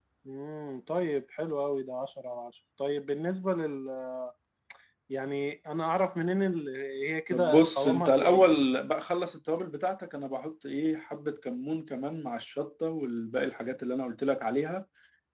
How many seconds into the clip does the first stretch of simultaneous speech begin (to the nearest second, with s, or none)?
7 s